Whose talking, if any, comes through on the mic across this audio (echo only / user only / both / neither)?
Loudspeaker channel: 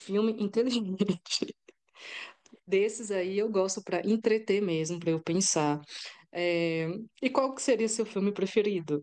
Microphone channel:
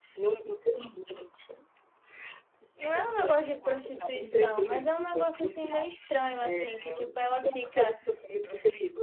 both